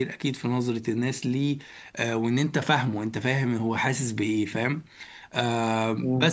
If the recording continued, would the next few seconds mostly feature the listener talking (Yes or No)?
Yes